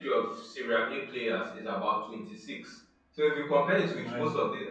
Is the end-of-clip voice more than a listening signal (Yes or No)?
No